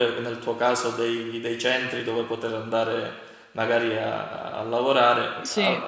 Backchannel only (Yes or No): Yes